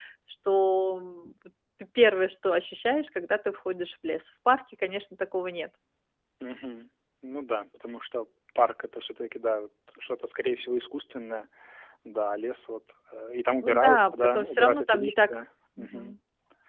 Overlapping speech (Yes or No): Yes